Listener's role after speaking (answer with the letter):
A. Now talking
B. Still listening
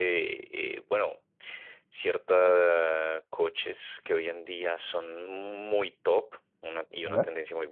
B